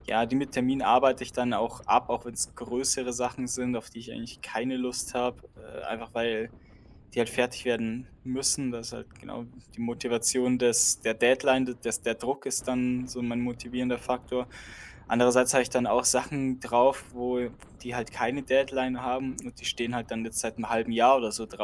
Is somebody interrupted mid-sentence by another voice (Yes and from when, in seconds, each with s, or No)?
No